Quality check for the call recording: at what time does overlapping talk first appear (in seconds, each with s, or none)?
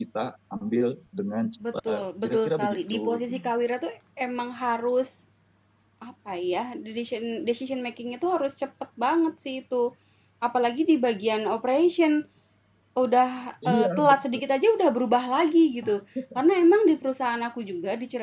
1.9 s